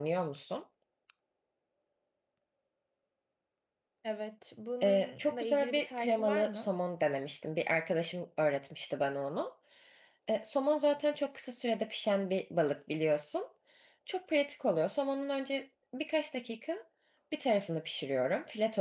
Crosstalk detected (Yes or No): Yes